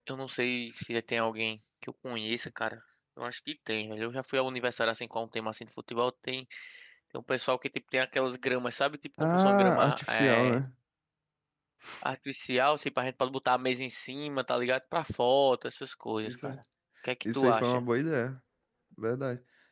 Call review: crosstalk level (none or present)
present